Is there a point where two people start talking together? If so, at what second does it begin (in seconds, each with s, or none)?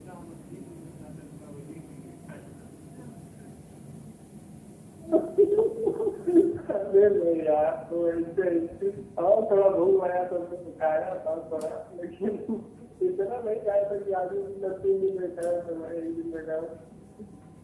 none